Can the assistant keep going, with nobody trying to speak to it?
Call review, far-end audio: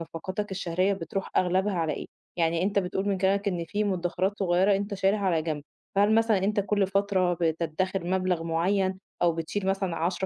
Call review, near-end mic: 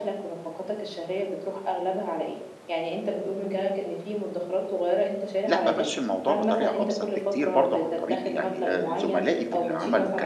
No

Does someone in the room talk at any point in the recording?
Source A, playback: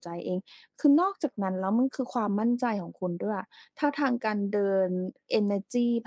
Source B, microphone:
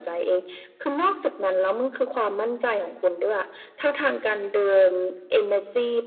No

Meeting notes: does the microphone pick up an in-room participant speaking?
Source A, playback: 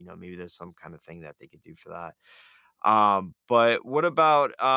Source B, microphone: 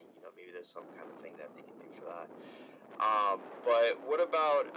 No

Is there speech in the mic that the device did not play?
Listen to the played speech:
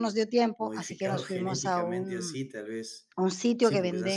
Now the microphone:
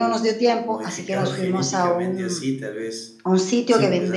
No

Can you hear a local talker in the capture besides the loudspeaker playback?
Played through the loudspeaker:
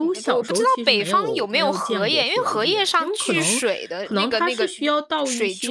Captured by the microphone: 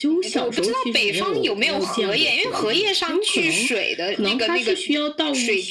No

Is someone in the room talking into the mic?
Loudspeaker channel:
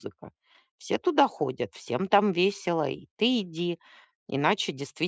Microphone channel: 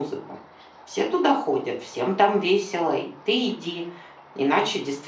No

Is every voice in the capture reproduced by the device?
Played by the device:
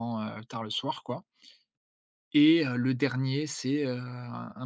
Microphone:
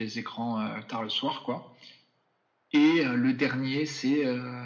Yes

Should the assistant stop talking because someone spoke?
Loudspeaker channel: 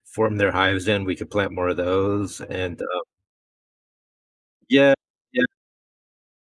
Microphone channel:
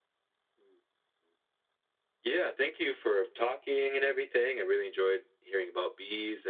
Yes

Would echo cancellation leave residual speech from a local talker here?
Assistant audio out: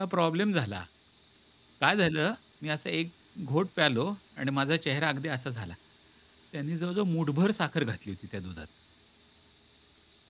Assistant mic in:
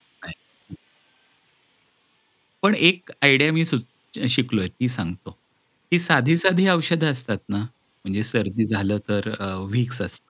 Yes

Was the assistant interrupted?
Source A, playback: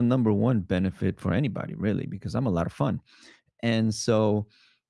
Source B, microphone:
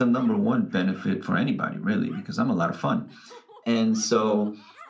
No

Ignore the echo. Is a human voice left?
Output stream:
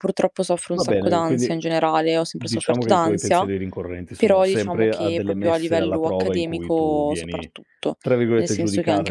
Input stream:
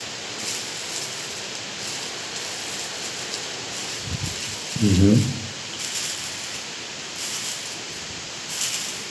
Yes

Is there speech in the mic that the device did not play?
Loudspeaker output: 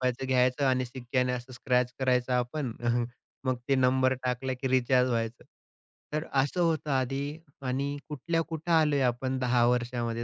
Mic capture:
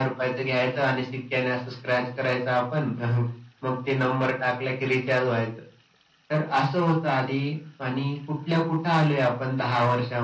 No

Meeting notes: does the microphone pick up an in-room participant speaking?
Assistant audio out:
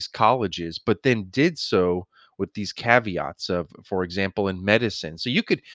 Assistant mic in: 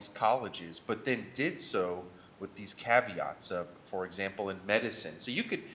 No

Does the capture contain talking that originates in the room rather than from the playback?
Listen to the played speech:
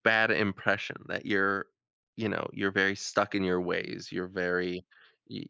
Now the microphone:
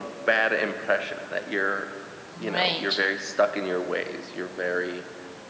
Yes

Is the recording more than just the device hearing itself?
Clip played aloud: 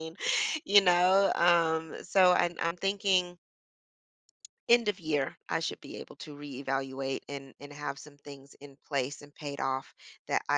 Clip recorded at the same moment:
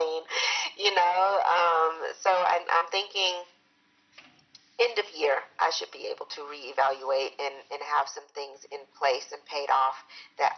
No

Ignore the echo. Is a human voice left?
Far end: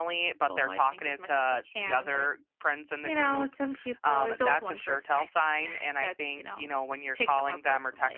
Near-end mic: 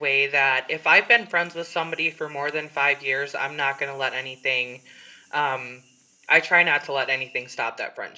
Yes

